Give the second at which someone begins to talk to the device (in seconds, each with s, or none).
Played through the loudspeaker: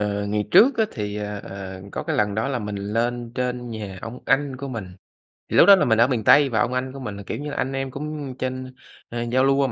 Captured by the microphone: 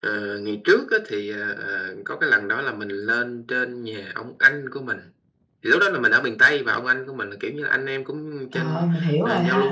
8.5 s